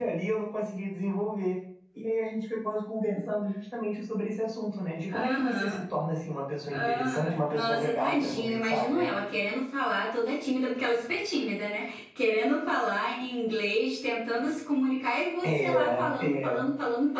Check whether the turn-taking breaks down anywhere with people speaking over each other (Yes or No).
Yes